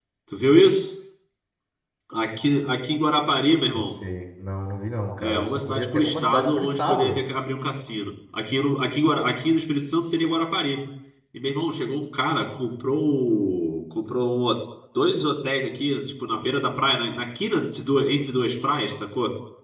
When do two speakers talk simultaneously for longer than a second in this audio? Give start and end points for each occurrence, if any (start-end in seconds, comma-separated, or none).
5.2-7.2